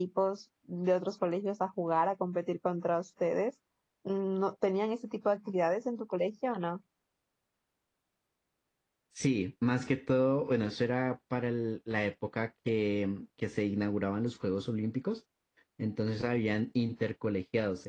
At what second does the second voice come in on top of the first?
none

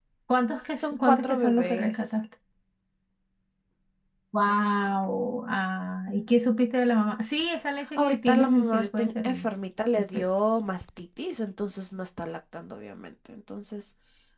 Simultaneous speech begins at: 0.8 s

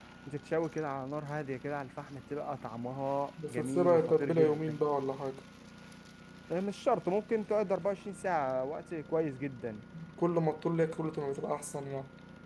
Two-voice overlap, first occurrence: 3.4 s

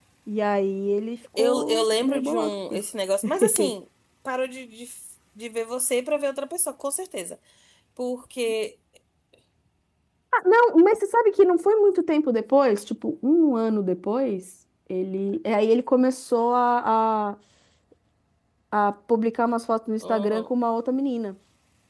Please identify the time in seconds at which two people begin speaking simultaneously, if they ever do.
1.4 s

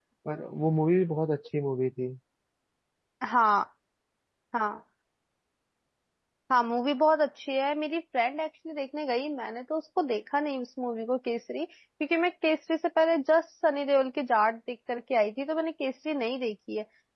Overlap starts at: none

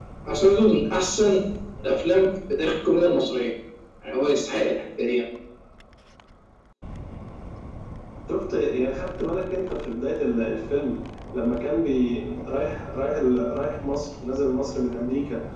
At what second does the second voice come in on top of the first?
none

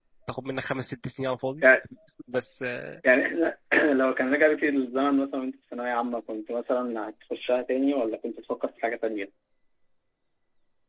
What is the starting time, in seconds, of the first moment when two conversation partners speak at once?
none

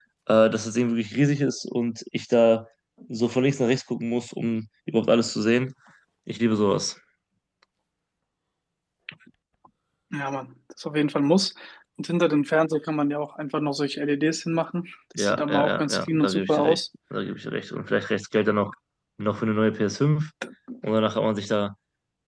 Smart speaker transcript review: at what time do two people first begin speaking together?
15.2 s

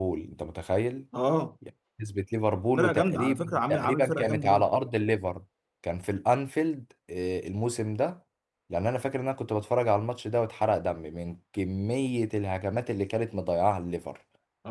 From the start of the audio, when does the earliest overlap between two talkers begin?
2.8 s

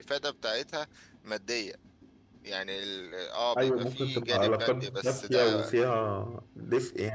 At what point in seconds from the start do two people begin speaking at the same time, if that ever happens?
3.5 s

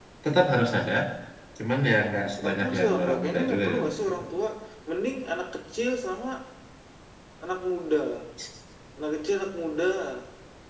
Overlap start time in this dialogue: 2.4 s

